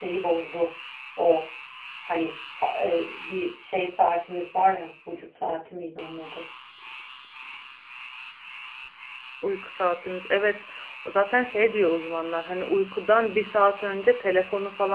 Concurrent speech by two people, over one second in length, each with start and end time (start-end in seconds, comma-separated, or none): none